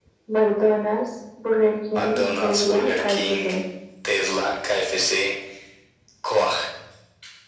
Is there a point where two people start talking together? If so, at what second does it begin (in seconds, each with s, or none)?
1.9 s